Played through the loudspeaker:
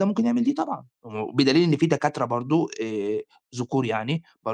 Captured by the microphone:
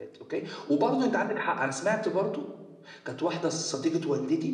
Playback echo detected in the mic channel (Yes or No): No